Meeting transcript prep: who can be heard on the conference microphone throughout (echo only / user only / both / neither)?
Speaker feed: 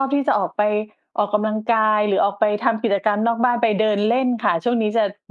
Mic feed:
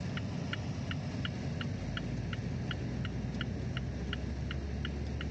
neither